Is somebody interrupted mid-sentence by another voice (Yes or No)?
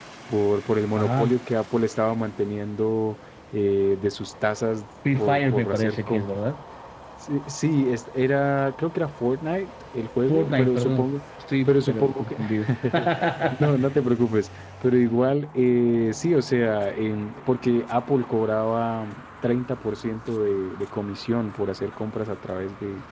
Yes